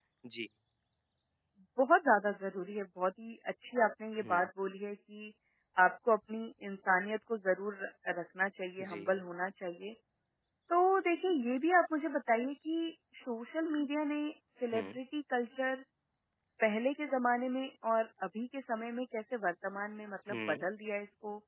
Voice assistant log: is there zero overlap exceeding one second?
Yes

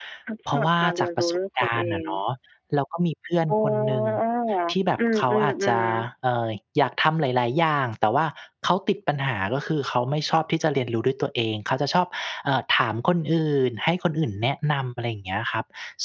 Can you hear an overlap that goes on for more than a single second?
Yes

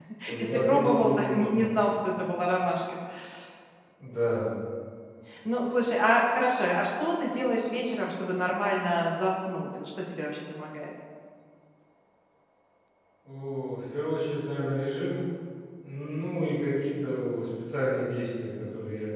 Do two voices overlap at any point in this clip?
Yes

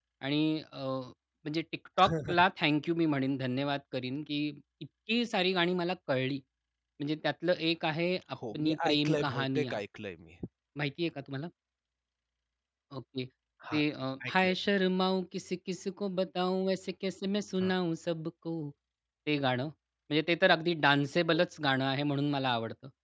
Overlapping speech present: Yes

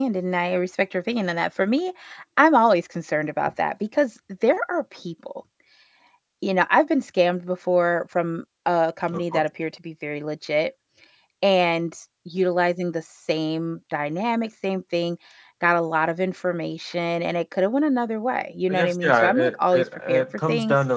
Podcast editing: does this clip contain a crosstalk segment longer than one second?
Yes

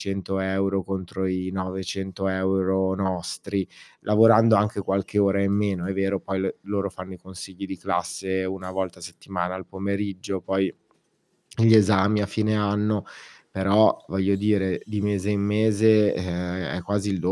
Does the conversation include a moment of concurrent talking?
No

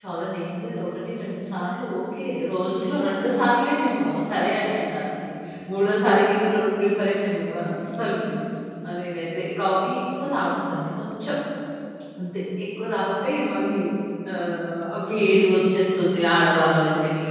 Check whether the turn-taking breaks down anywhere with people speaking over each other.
No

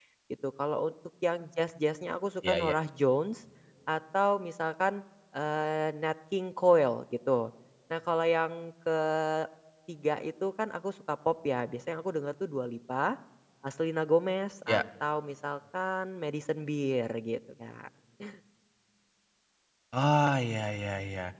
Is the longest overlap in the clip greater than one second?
No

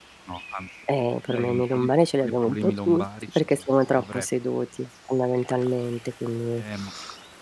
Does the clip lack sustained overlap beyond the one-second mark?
No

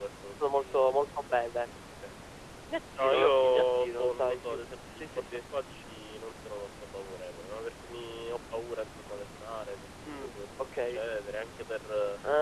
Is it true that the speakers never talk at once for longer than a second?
No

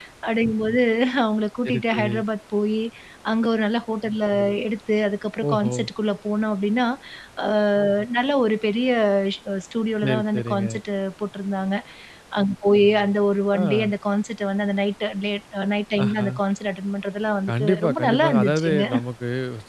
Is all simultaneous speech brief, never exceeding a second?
No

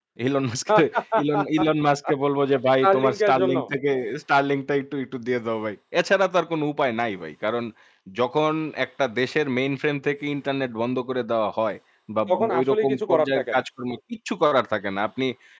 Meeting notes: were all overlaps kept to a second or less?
No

